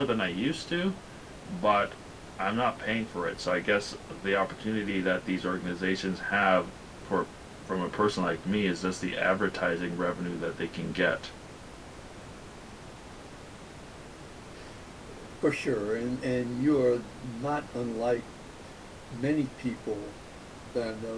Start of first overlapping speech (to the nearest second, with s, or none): none